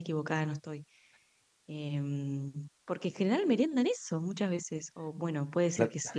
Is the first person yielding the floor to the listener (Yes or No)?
No